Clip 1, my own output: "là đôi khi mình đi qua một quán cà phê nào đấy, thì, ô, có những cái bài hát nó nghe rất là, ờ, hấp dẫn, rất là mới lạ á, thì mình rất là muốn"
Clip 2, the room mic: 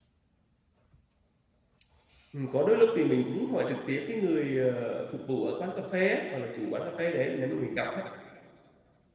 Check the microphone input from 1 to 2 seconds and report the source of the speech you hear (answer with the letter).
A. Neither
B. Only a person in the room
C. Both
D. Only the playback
A